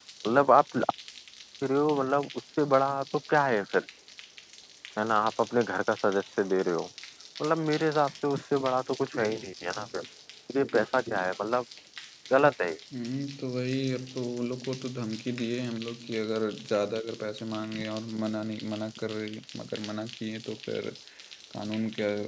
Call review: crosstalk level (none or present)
none